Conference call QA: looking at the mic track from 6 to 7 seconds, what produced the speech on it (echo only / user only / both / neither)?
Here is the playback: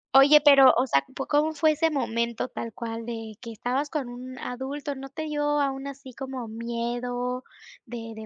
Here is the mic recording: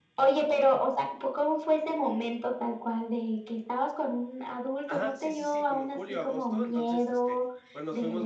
both